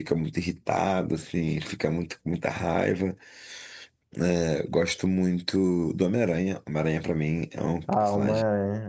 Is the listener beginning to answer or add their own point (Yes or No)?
Yes